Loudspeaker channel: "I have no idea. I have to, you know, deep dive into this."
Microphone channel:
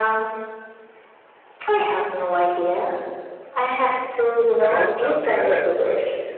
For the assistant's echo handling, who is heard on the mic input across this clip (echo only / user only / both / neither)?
both